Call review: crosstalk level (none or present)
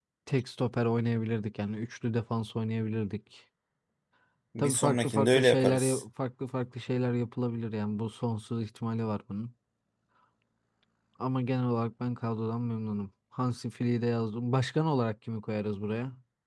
present